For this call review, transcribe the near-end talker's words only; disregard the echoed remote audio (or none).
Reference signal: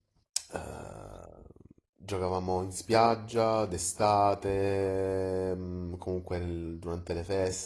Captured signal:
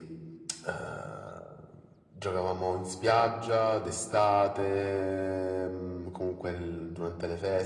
none